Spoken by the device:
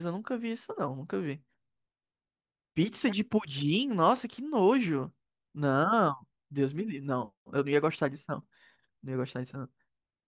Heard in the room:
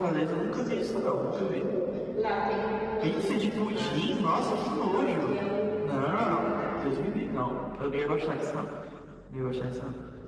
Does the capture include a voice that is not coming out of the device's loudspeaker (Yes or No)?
Yes